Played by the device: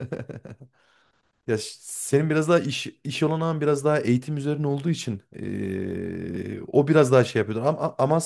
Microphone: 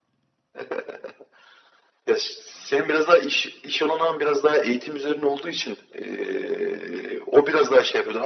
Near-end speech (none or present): none